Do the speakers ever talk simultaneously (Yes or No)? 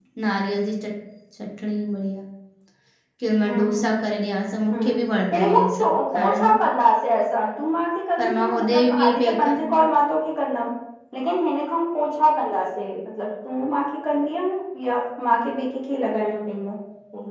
Yes